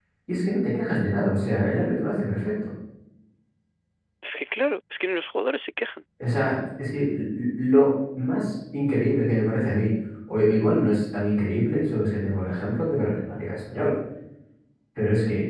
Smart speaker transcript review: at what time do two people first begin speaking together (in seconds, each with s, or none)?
none